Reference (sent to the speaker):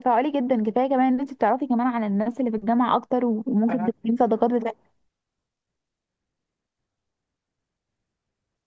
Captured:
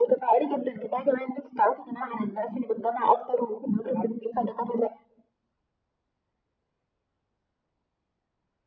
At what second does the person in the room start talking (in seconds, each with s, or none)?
none